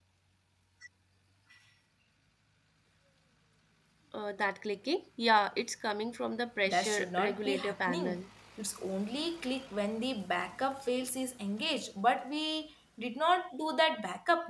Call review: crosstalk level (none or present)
present